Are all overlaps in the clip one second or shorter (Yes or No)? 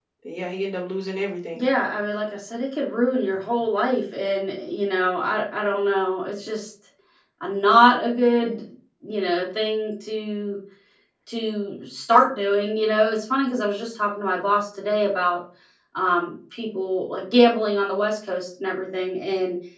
Yes